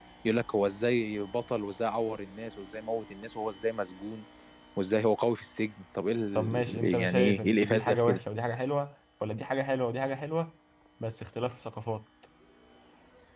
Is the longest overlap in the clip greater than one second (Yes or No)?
Yes